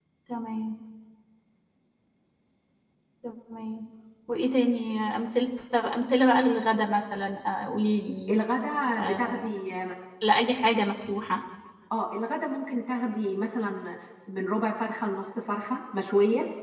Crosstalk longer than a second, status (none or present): none